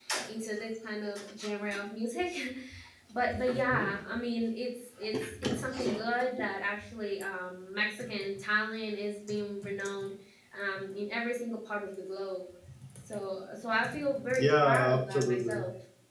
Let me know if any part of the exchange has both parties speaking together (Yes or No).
Yes